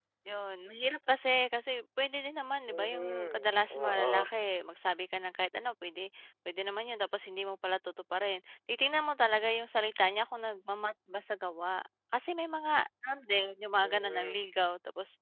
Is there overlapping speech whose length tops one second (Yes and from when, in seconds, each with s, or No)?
Yes, from 2.7 s